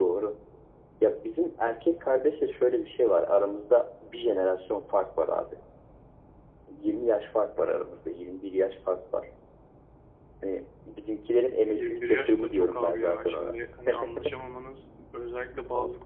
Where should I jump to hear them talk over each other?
11.7 s

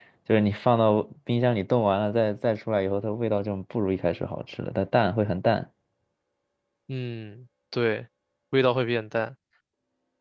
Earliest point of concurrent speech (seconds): none

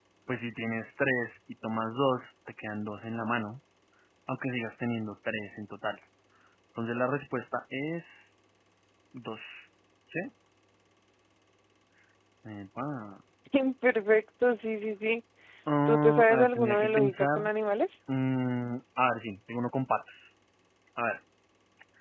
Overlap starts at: 15.9 s

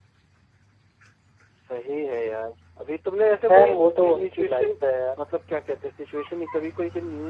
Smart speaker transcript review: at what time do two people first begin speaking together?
3.4 s

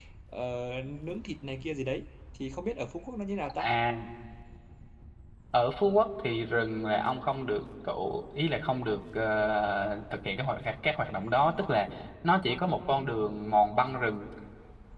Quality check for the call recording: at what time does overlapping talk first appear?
none

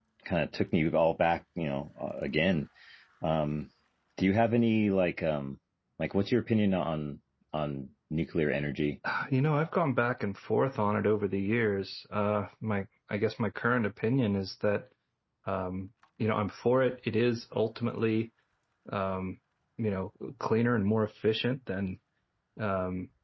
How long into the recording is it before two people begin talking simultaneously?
none

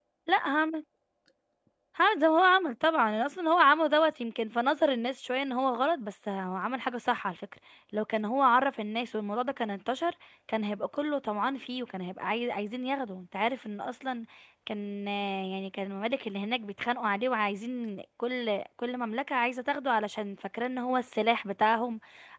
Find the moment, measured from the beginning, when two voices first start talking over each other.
none

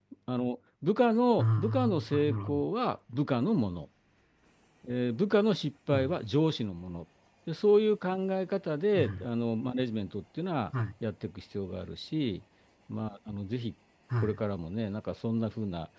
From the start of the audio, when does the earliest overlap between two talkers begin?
1.4 s

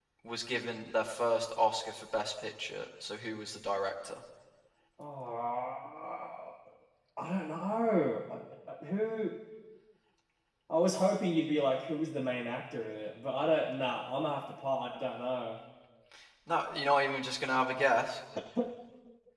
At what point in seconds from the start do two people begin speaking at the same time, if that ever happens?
none

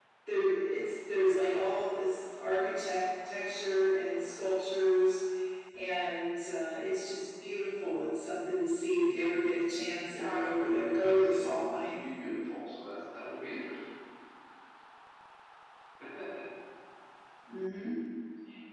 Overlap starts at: 10.1 s

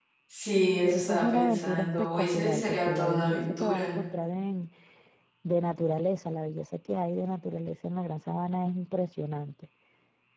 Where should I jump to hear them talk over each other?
0.9 s

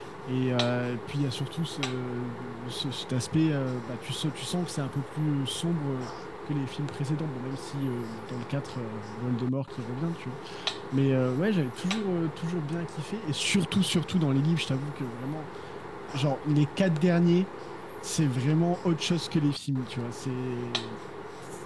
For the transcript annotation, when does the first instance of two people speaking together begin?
none

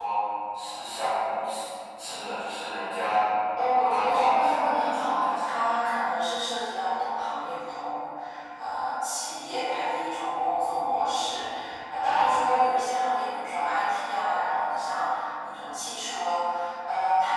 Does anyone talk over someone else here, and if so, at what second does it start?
3.6 s

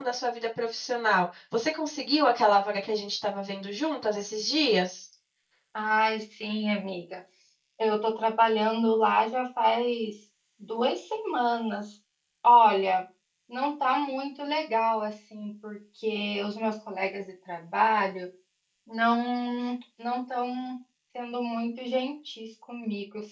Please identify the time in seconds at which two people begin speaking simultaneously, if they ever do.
none

